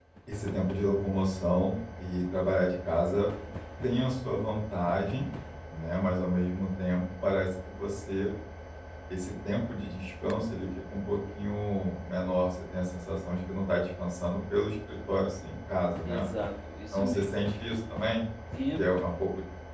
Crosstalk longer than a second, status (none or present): none